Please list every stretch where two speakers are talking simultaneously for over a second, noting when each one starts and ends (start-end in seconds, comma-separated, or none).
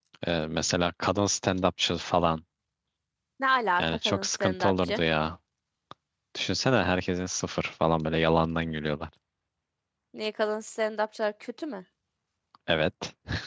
3.8-5.0